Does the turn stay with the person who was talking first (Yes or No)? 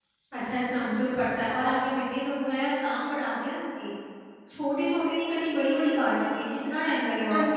No